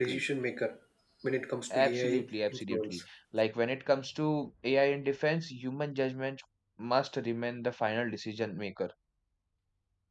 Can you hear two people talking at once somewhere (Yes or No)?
Yes